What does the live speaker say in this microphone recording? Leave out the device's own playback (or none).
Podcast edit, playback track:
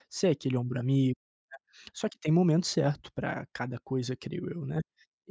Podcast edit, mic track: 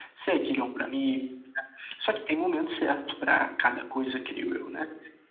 none